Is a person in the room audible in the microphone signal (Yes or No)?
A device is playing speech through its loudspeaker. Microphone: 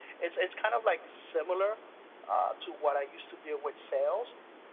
No